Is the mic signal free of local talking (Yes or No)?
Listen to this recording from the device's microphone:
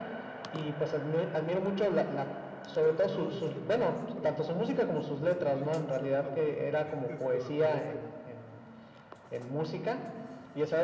No